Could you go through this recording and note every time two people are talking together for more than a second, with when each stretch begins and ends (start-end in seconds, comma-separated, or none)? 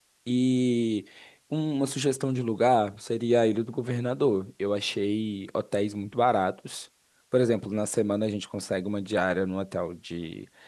none